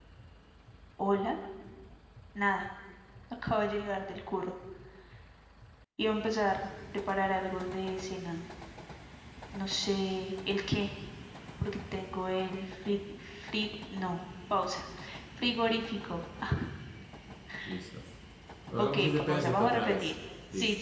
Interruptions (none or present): present